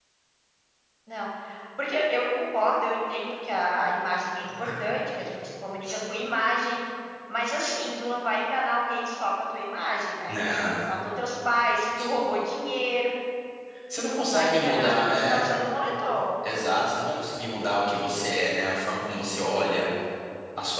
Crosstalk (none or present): present